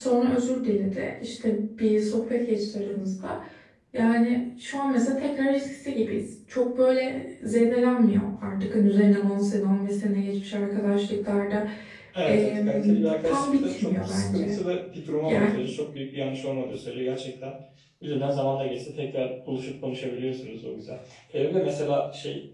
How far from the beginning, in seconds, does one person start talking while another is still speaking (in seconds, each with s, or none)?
12.3 s